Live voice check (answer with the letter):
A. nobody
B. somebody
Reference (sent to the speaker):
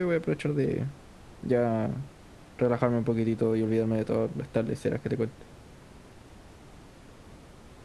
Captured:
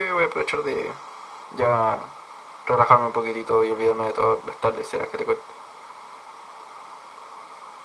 A